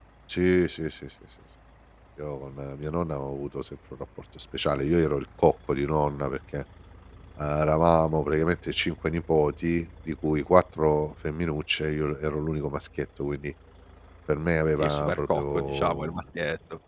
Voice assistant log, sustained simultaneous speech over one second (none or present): present